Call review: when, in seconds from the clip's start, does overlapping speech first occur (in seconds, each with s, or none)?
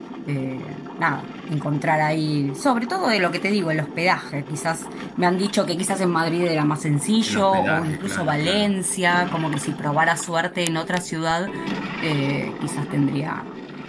7.3 s